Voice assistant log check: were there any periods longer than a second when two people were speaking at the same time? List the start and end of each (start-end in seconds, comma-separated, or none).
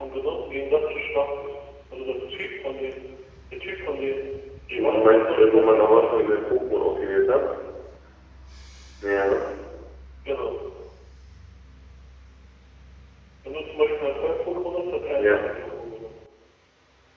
4.8-6.4